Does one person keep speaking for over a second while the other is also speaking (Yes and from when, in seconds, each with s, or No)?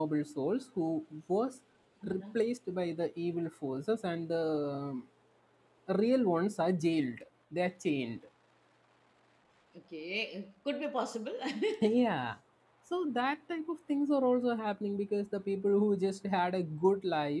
No